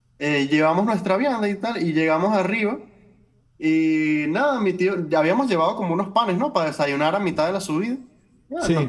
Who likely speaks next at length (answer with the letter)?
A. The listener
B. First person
B